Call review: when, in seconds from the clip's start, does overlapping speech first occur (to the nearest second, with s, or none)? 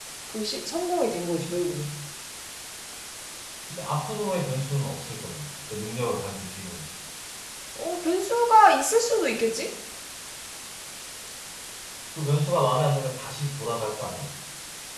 none